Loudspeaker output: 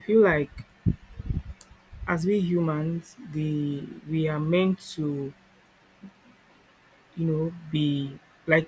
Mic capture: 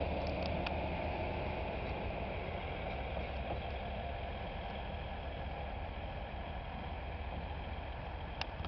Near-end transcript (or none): none